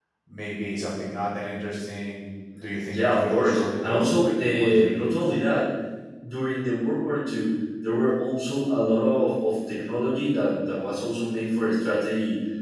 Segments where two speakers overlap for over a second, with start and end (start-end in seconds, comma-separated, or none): 2.8-5.3